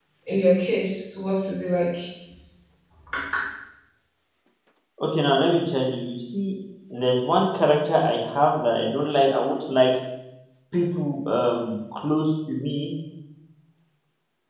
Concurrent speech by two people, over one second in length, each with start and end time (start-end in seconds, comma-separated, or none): none